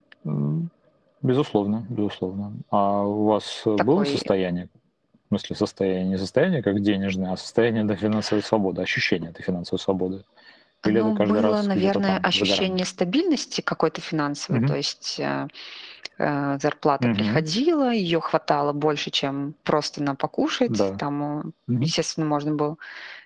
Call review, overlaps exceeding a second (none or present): present